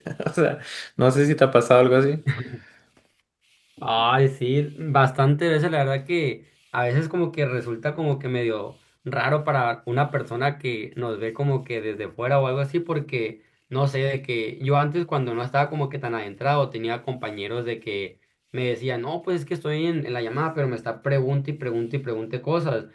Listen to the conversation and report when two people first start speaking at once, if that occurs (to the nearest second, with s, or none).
none